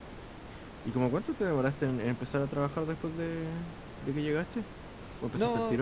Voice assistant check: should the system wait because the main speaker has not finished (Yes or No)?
No